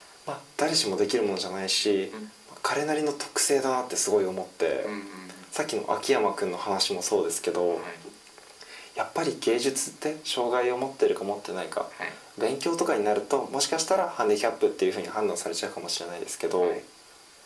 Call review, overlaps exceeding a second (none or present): none